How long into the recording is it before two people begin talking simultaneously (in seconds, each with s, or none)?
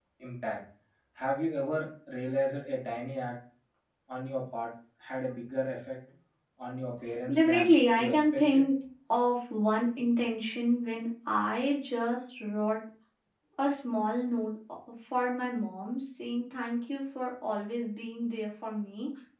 7.3 s